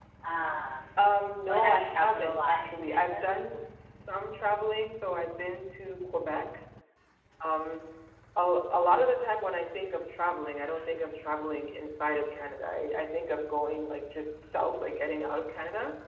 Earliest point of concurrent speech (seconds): 1 s

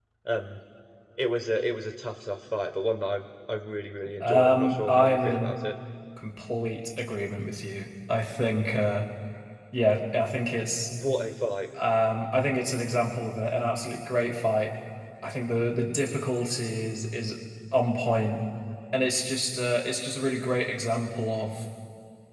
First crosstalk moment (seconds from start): 4 s

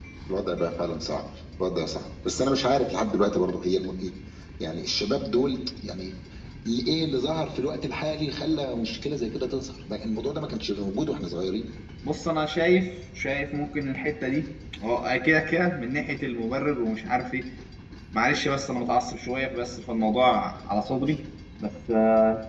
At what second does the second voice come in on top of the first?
none

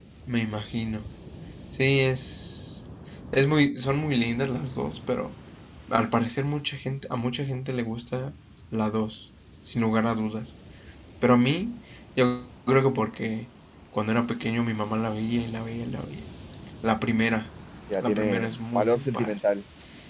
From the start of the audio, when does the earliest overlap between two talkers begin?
18 s

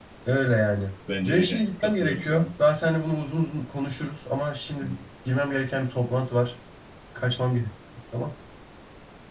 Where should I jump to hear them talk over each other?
1 s

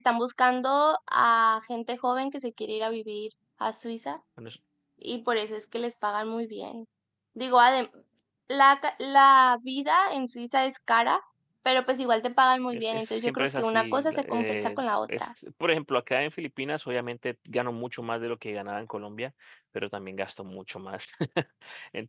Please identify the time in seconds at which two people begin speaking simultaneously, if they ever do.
13 s

